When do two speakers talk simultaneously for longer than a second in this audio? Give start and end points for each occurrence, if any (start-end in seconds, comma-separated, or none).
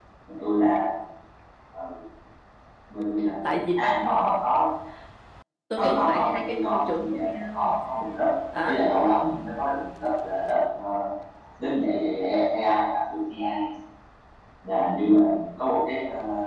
5.8-7.8